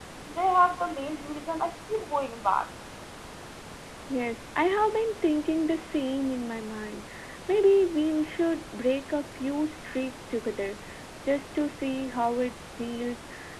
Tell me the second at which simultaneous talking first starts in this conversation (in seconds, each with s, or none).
none